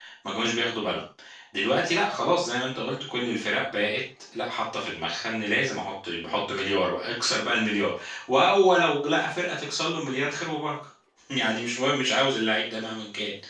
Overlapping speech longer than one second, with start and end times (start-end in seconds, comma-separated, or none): none